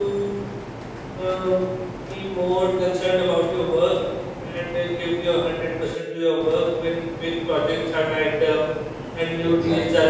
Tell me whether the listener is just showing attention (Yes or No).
Yes